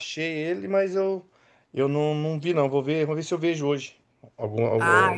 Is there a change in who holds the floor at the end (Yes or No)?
Yes